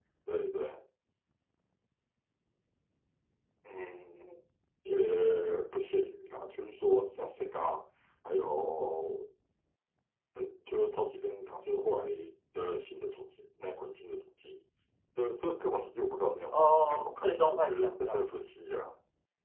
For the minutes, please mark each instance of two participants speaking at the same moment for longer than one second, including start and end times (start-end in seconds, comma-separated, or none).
16.5-18.2